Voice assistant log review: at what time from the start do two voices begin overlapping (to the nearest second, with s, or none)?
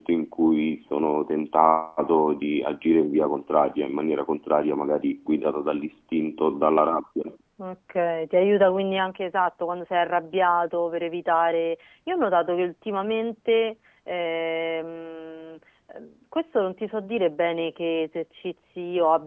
none